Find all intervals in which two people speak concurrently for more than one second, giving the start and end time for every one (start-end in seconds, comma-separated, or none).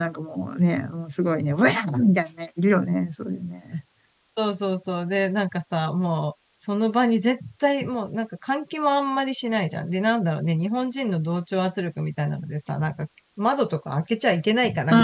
none